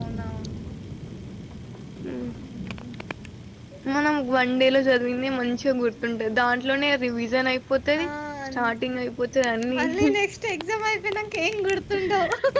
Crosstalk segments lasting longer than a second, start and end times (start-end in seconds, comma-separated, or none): none